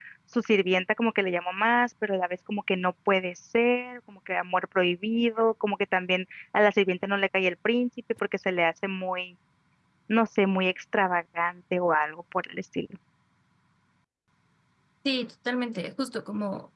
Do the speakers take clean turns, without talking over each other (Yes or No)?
Yes